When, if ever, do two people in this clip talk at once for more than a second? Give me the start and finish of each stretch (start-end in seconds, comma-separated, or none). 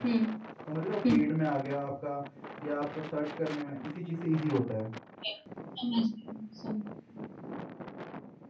none